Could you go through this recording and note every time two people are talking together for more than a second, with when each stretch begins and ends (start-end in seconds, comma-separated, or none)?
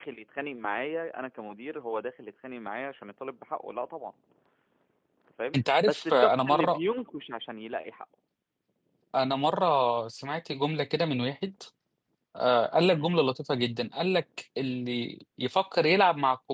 5.5-6.8